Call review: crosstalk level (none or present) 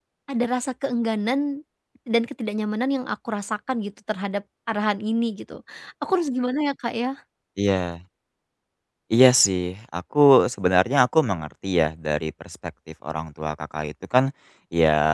none